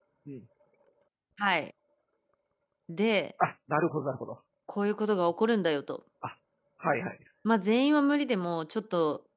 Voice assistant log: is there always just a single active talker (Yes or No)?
Yes